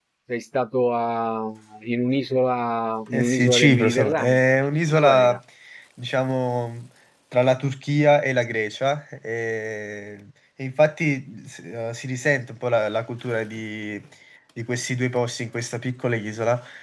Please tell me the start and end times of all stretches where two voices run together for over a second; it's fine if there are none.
3.1-5.4

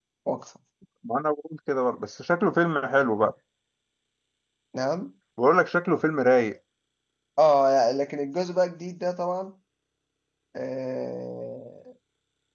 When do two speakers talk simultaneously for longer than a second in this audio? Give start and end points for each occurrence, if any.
none

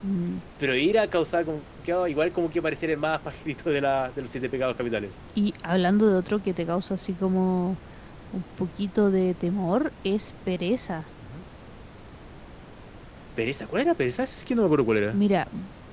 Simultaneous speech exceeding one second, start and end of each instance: none

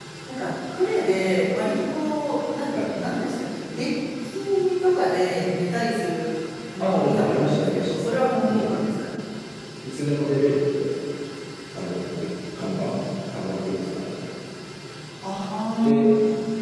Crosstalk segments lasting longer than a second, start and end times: 6.8-8.0

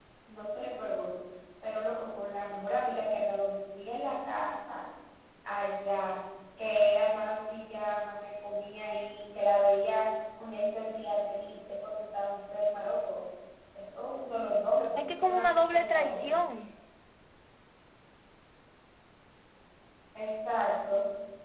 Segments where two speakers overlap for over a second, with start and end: 15.0-16.4

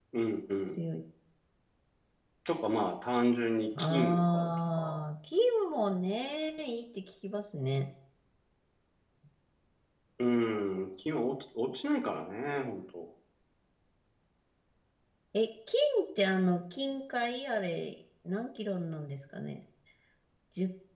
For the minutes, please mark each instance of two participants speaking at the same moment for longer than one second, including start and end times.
3.8-5.0

